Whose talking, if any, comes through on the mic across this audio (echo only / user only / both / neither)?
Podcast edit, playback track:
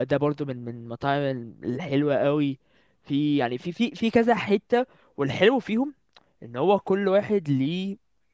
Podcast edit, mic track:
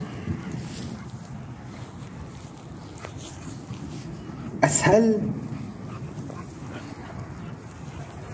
user only